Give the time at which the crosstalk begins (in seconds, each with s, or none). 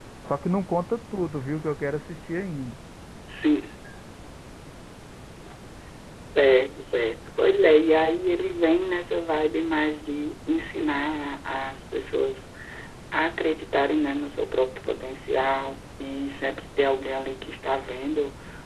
none